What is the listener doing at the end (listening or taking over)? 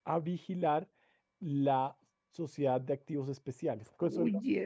taking over